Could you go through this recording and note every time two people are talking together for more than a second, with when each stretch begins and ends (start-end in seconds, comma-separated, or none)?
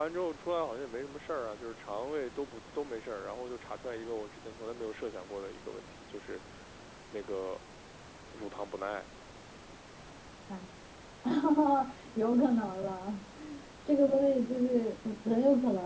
none